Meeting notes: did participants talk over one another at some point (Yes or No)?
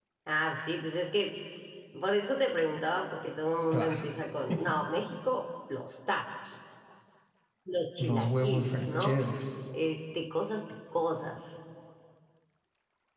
Yes